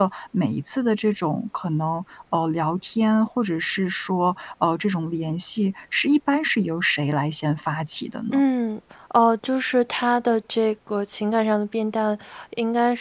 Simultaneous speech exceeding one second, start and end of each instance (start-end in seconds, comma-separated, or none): none